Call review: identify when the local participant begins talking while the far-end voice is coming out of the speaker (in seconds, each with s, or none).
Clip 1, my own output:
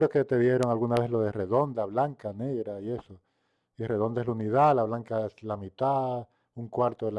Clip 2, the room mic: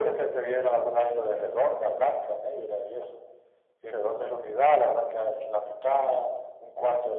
none